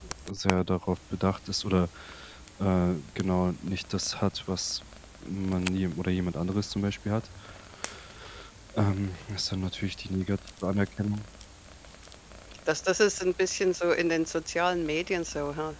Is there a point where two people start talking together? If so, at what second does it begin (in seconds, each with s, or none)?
none